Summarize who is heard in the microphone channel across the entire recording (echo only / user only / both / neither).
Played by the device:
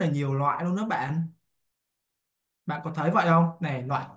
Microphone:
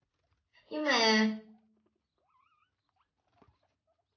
user only